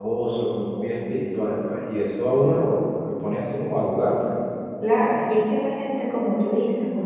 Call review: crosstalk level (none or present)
none